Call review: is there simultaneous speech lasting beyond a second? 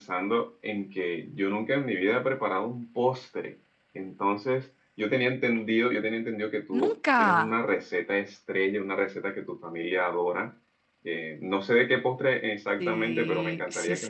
Yes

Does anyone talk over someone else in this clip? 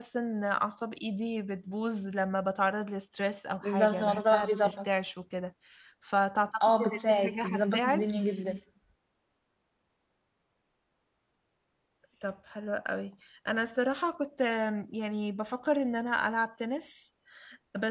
Yes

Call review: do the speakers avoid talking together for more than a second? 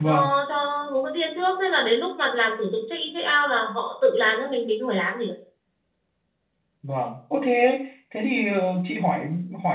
Yes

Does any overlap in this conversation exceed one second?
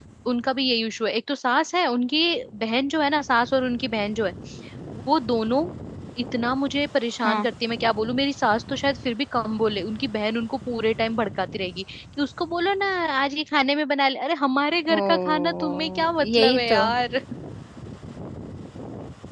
Yes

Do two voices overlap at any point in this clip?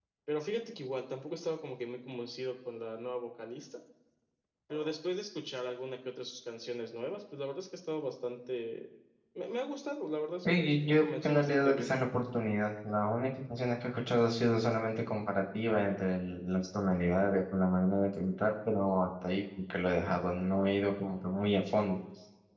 Yes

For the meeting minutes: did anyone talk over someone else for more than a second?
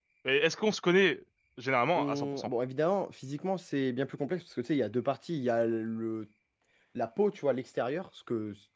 No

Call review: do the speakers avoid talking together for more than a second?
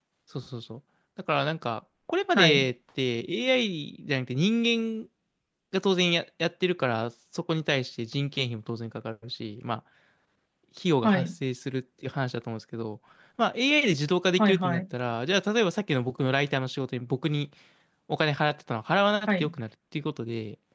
Yes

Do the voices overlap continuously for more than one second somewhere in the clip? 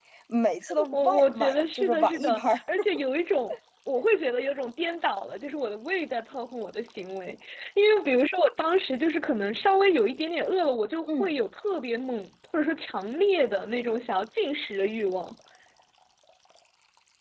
Yes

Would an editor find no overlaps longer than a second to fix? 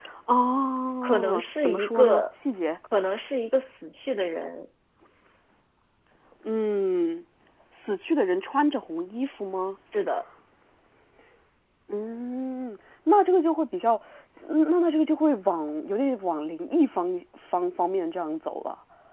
No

